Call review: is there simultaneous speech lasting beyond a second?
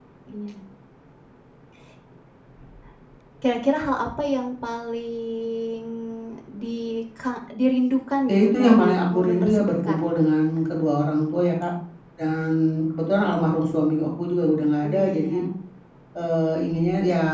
Yes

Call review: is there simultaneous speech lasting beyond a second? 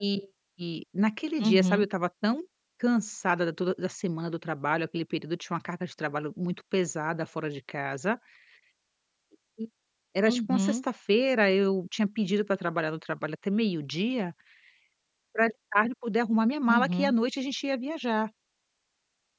No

